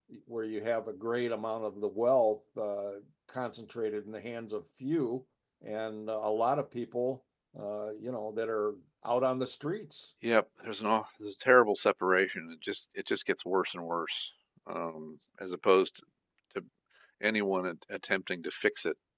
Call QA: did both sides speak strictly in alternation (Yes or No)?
Yes